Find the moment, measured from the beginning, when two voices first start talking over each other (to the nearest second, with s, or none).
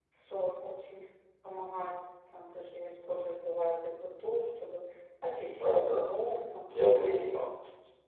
6 s